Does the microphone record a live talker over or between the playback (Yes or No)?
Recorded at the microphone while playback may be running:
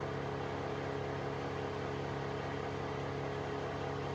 No